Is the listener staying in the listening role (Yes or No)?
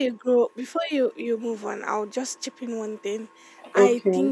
Yes